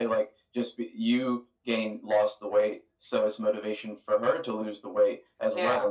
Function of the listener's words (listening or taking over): listening